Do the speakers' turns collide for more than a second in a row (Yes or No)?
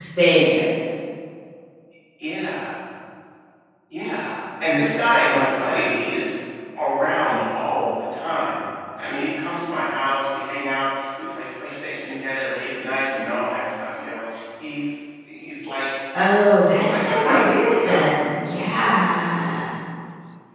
Yes